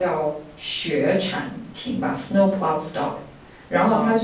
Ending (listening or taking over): listening